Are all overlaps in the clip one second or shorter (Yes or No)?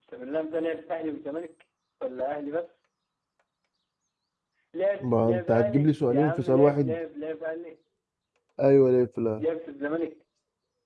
No